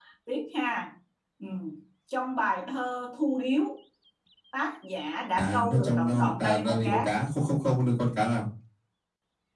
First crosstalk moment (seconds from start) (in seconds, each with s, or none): 5.4 s